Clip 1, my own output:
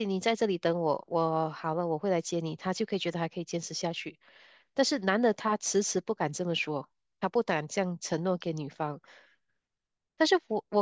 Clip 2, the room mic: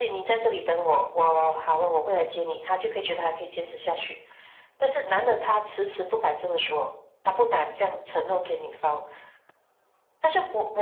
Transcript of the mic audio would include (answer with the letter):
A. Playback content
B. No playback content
A